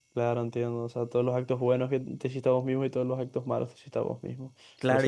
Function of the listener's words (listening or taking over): taking over